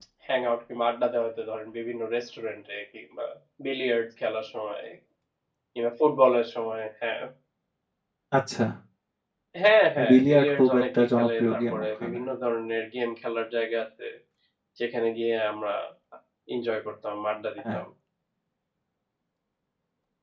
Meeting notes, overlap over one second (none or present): present